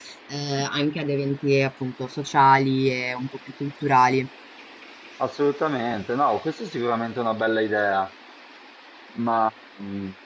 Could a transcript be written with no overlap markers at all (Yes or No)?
Yes